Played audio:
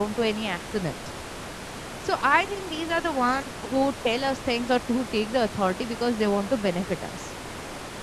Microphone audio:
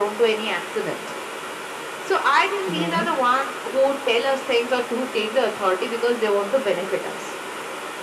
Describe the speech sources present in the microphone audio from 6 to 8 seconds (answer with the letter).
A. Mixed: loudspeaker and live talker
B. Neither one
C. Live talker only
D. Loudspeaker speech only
D